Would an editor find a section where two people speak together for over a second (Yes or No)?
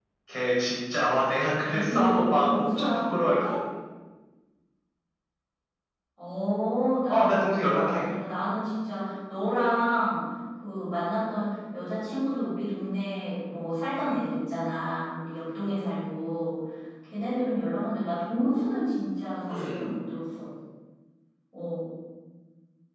Yes